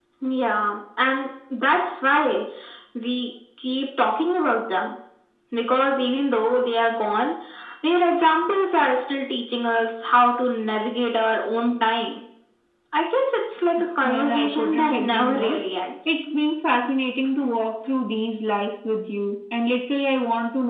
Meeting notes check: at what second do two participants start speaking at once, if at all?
14.0 s

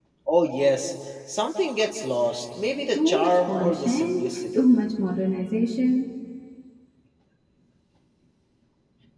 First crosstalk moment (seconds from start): 3.0 s

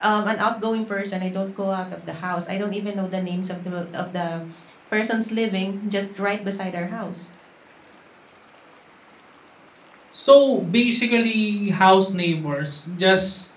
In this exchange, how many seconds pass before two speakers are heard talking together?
none

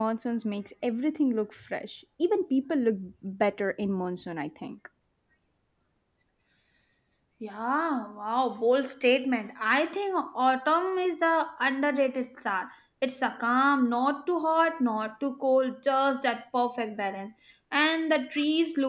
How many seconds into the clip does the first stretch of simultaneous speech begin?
none

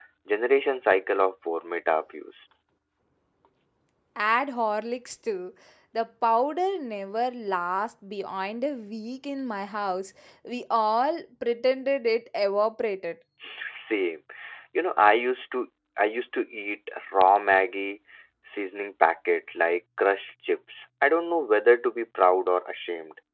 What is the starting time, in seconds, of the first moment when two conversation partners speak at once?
none

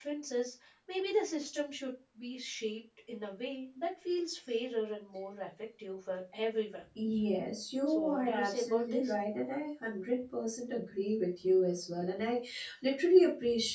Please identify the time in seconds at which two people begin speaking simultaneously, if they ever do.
7.9 s

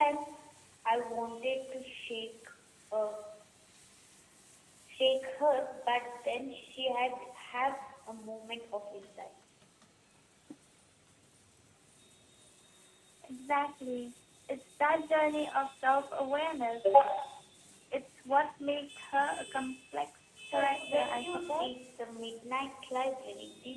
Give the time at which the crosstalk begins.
20.4 s

